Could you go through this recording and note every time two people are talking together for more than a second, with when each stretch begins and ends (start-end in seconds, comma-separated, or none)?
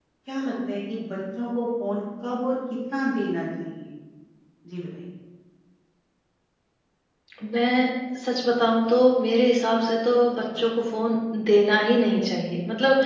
none